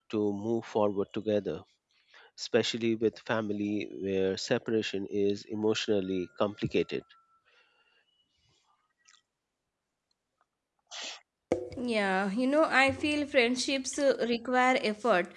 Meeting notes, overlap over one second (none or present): none